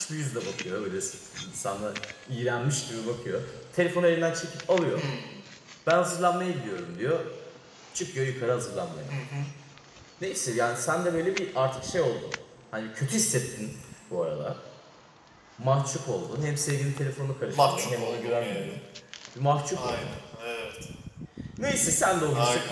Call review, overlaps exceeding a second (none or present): present